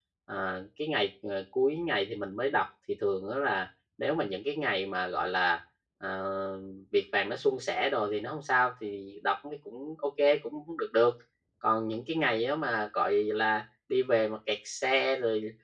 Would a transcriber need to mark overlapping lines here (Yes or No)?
No